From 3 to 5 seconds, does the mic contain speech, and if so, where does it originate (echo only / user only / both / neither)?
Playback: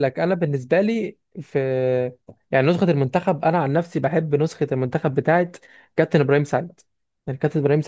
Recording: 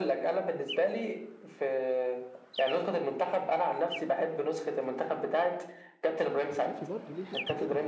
echo only